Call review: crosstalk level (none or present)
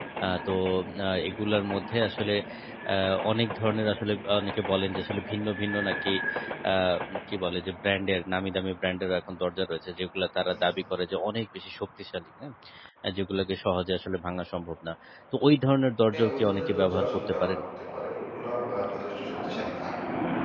present